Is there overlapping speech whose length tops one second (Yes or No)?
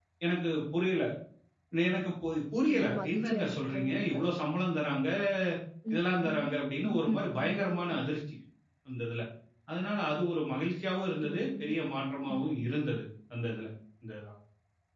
Yes